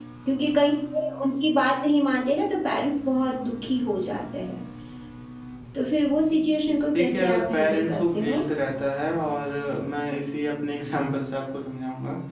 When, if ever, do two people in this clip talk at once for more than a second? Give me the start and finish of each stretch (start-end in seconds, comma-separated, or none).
7.0-8.4